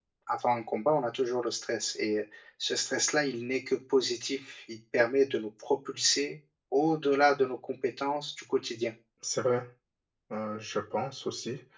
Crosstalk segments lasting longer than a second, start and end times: none

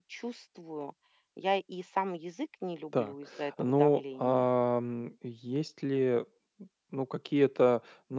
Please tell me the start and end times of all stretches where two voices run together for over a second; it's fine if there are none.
2.9-4.5

